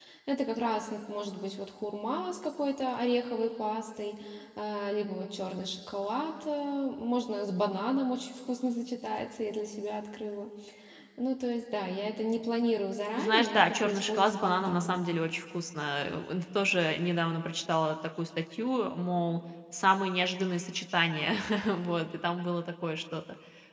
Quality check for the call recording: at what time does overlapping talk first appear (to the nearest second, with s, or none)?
13 s